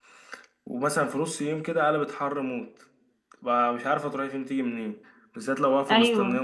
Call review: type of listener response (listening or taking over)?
listening